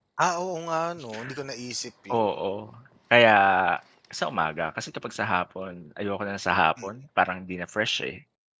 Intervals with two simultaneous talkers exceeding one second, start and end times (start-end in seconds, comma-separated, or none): none